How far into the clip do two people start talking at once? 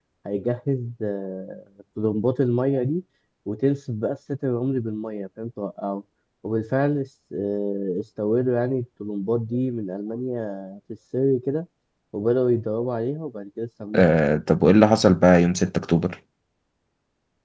none

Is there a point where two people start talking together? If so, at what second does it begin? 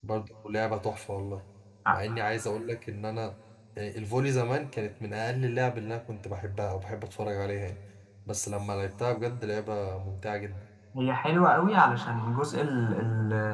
none

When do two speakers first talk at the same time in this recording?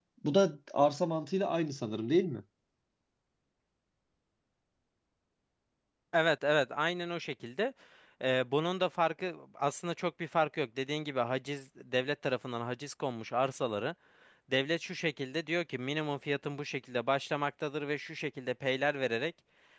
none

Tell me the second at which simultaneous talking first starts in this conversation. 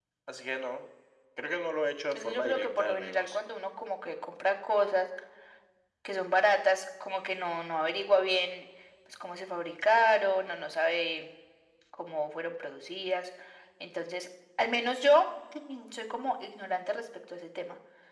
2.1 s

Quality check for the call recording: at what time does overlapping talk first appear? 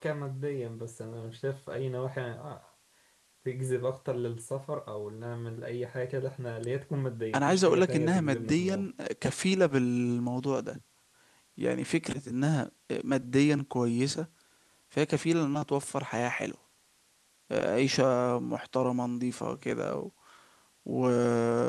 7.3 s

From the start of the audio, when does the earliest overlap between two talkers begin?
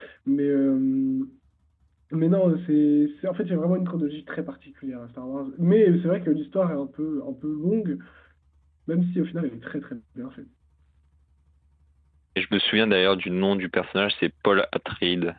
none

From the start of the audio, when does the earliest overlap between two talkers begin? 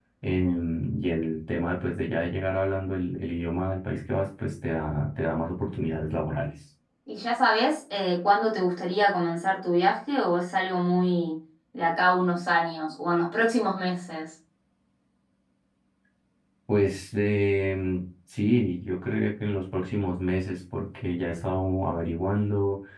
none

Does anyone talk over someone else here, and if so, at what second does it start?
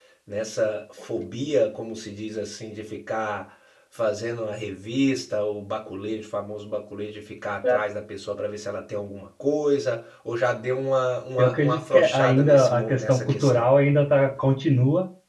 11.4 s

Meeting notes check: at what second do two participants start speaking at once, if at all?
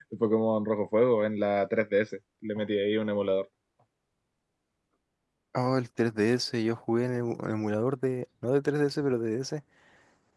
none

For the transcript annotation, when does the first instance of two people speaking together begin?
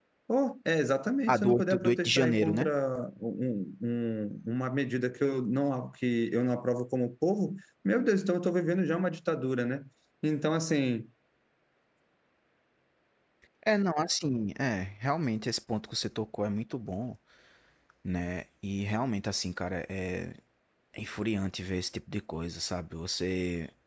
1.3 s

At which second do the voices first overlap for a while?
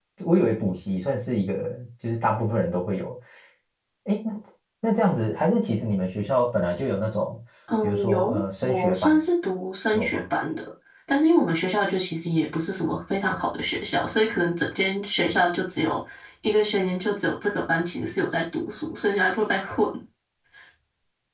7.8 s

